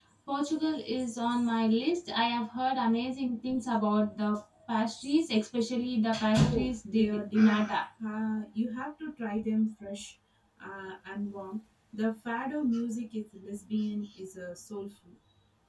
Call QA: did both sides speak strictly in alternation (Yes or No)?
No